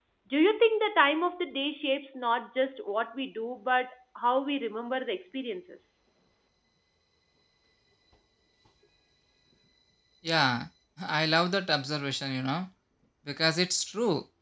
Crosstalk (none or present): none